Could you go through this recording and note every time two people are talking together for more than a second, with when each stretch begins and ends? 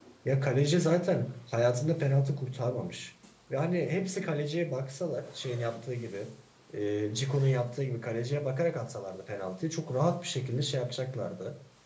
none

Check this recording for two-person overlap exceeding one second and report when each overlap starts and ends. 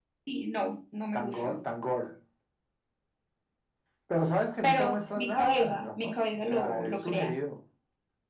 4.6-7.3

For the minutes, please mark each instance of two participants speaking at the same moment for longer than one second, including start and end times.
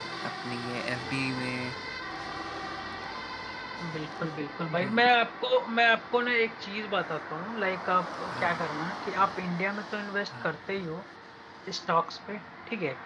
none

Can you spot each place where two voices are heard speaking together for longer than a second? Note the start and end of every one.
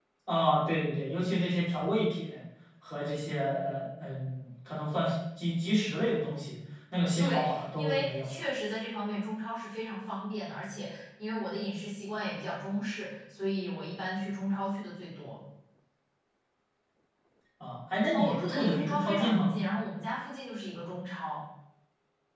7.2-8.4, 18.1-19.5

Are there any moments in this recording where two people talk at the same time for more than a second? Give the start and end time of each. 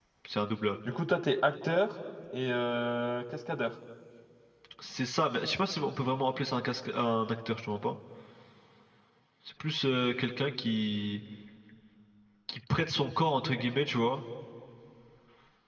none

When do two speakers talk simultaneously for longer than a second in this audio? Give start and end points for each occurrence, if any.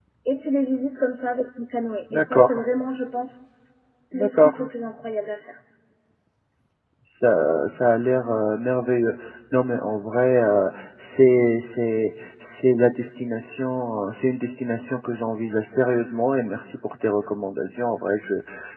none

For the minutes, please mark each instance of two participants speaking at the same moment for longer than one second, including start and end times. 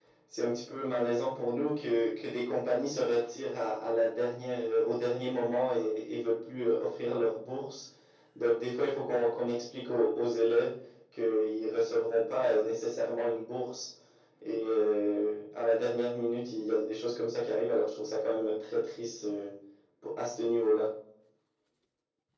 none

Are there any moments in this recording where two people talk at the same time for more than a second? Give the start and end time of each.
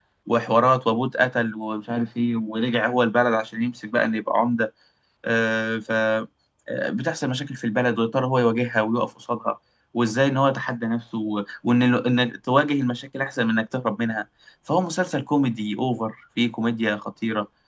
none

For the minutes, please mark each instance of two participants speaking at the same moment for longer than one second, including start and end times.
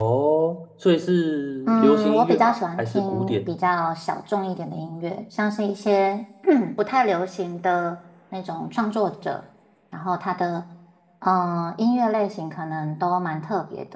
1.7-3.5

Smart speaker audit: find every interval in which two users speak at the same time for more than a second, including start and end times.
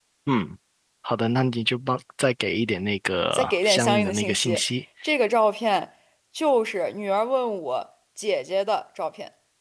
3.3-4.6

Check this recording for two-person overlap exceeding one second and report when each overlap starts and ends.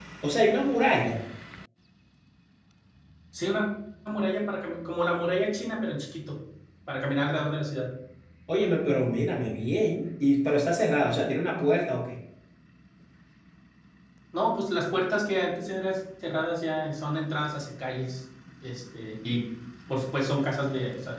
none

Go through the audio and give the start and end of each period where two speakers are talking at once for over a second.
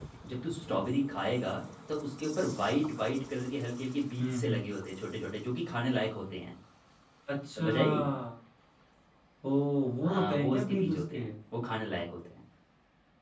10.0-11.2

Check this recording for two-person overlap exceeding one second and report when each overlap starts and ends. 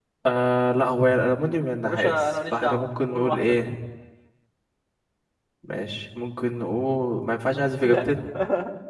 1.8-3.7

